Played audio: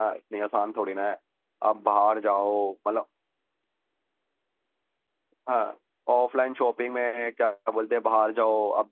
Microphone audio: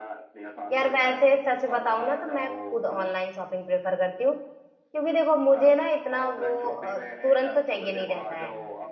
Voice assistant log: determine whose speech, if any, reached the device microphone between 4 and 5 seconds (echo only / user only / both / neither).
user only